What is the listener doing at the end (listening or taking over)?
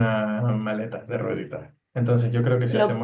listening